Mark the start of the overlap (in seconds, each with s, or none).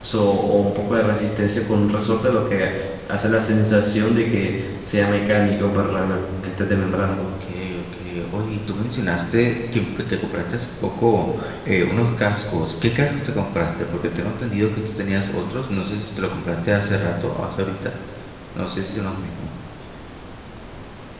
none